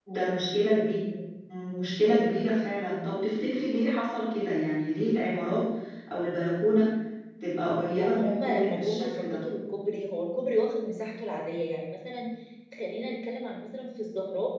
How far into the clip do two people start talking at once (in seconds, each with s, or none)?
7.9 s